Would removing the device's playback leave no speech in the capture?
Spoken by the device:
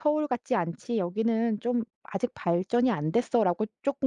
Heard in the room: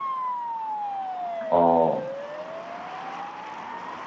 No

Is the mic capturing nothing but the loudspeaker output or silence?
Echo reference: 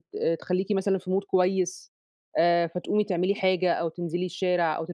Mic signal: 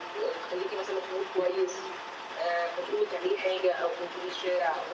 Yes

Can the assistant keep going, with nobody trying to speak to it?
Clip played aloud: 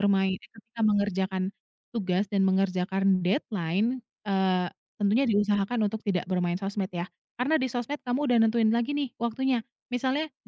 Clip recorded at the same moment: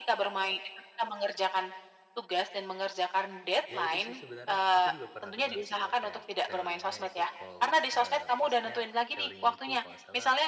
No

